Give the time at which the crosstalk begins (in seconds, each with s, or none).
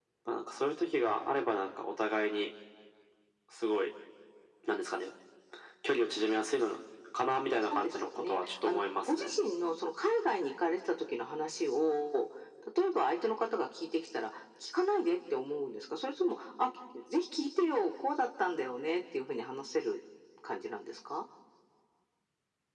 7.6 s